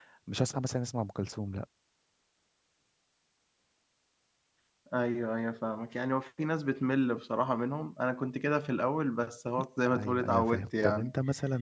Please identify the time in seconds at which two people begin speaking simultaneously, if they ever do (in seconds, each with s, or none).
9.9 s